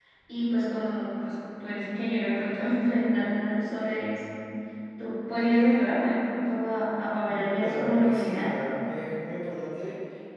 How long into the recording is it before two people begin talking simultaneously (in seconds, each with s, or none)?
7.3 s